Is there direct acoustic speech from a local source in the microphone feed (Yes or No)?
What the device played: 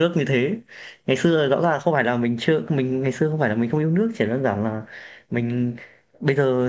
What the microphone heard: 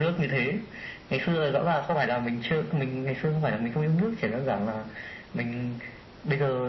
No